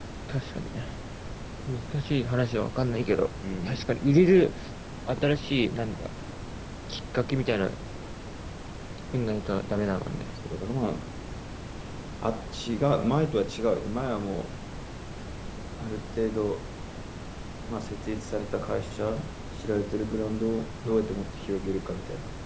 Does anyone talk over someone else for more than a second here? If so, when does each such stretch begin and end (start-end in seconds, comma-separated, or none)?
none